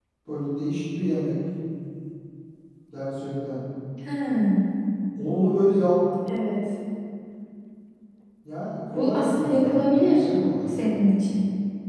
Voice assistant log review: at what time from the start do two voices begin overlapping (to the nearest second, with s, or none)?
9 s